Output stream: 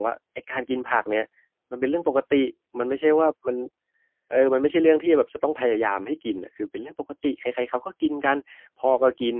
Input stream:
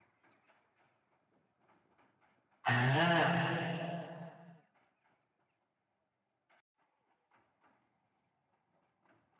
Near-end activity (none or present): present